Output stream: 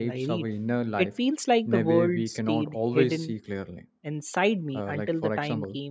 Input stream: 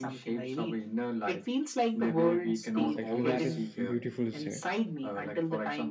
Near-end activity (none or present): present